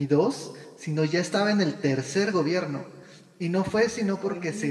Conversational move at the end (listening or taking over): listening